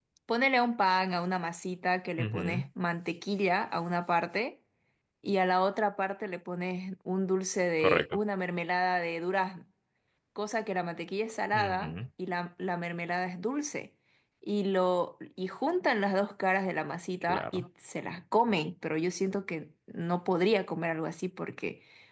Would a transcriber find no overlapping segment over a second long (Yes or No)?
Yes